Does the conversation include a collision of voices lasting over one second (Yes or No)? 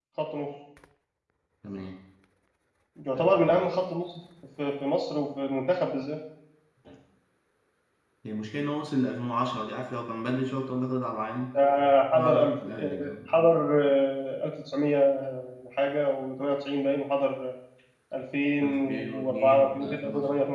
Yes